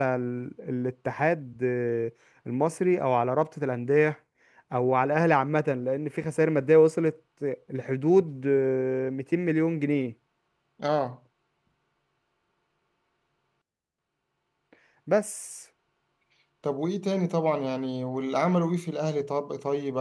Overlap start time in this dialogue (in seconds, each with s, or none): none